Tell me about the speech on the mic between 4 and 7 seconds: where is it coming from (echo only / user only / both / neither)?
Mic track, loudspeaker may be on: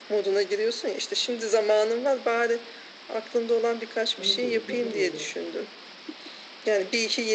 both